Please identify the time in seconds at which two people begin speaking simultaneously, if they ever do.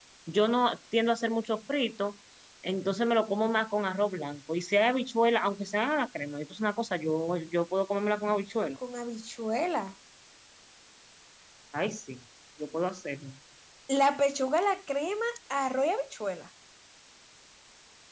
none

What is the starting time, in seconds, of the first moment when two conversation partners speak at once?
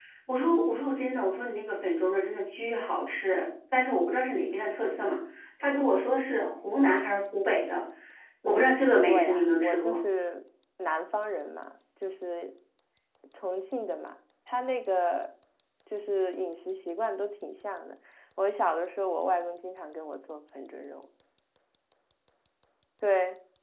8.4 s

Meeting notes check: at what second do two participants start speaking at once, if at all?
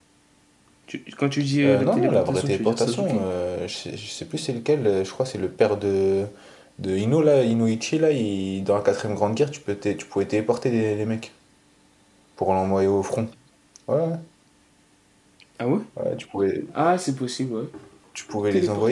1.6 s

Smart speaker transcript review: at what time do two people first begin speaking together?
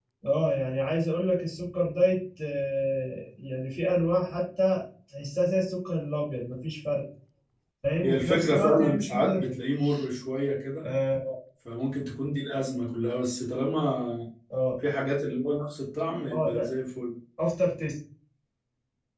8.0 s

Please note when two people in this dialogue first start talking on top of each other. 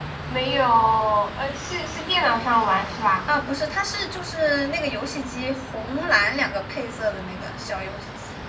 none

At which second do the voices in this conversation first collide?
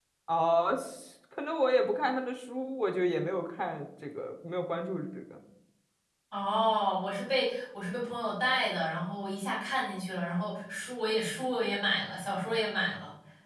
none

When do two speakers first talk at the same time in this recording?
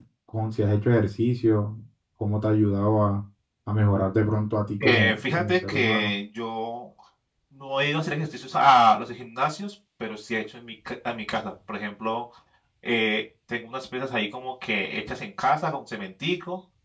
4.8 s

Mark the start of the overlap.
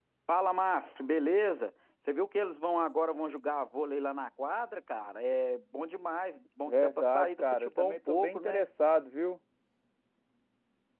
6.7 s

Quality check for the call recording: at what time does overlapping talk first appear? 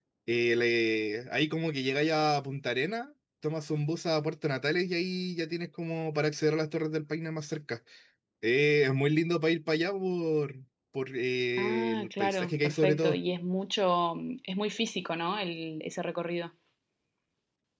11.6 s

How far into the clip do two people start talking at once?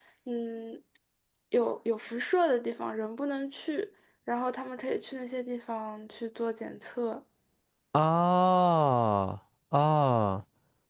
none

